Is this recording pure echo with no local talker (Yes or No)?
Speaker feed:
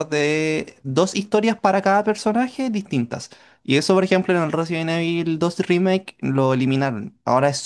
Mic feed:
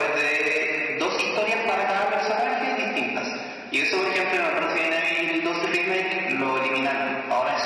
Yes